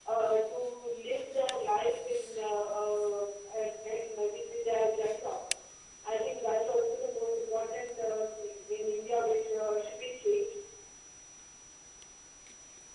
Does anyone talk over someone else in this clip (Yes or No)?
No